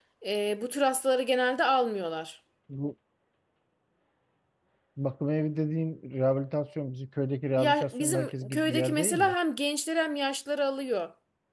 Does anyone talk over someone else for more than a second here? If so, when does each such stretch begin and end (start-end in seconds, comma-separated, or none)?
7.6-9.3